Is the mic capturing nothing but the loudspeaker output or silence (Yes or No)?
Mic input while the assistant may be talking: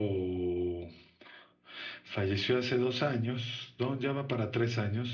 Yes